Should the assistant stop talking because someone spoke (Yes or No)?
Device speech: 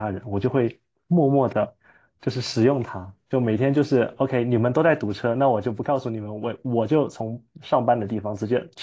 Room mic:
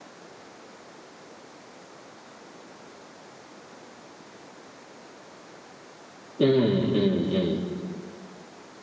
Yes